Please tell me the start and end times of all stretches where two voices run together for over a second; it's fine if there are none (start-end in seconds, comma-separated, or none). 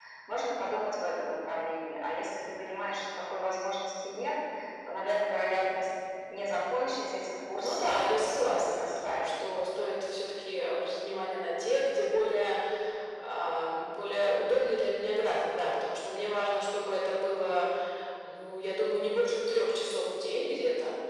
7.6-9.3